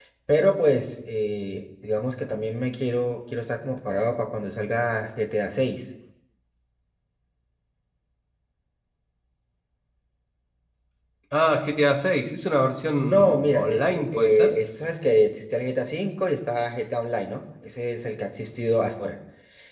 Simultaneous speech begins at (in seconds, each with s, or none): 12.9 s